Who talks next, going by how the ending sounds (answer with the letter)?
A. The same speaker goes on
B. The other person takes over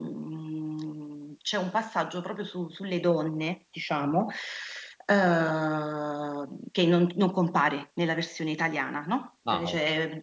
A